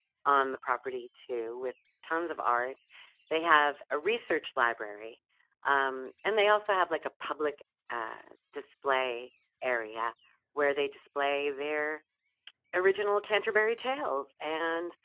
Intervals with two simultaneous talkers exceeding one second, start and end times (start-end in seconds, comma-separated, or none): none